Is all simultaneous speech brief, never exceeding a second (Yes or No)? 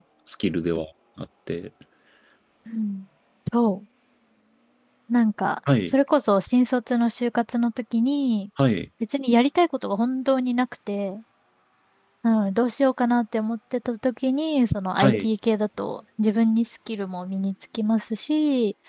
Yes